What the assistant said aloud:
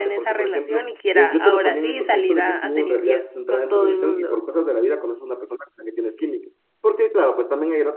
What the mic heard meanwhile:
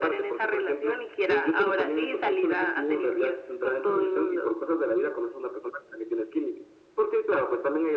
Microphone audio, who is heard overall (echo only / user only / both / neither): echo only